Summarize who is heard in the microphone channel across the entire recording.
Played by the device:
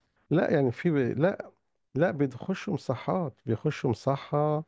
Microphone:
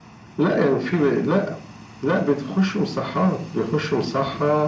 echo only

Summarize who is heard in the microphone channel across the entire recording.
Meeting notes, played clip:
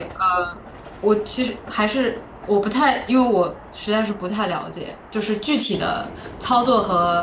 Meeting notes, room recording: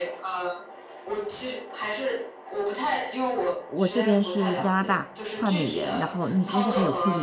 both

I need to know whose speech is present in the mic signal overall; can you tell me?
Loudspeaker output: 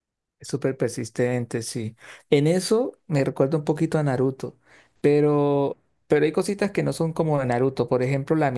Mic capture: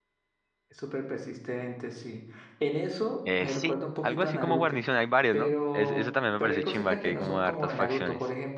both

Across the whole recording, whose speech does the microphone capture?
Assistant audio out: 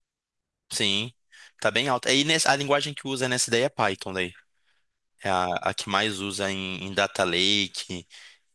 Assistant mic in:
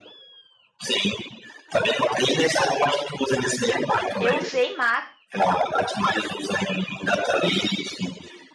both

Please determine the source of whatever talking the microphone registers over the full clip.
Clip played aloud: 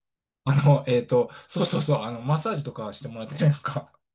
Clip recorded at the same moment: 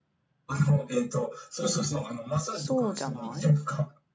both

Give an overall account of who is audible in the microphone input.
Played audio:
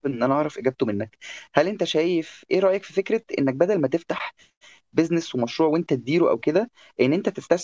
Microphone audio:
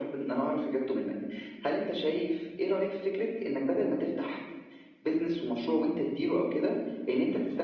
echo only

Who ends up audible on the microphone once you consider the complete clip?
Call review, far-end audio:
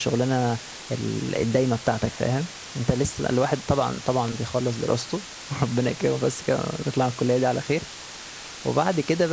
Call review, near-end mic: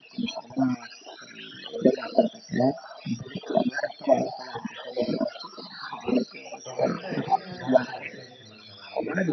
both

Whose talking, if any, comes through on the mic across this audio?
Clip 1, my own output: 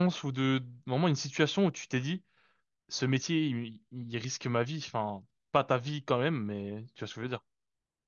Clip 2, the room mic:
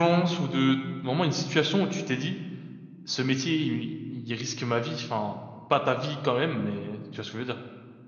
echo only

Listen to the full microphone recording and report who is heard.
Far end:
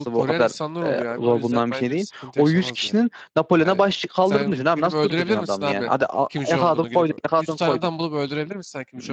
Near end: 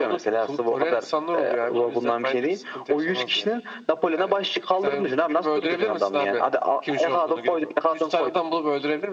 echo only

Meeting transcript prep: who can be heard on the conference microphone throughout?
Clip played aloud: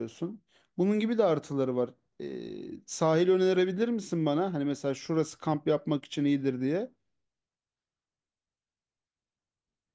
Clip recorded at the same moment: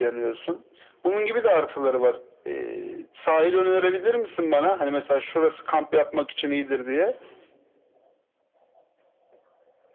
echo only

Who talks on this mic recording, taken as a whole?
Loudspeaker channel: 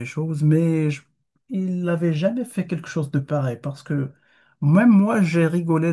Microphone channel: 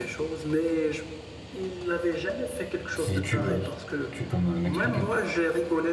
both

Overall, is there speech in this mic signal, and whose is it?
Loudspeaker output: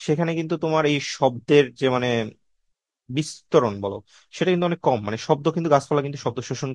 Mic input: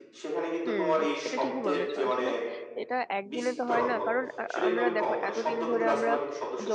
both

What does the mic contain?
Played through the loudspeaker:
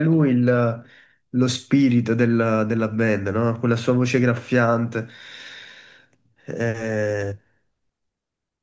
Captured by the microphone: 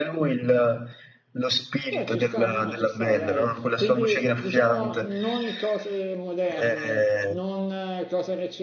both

